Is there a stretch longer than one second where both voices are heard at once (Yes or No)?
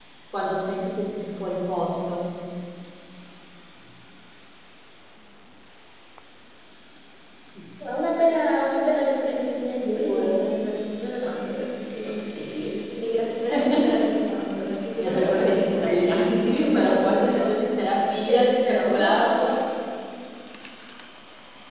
Yes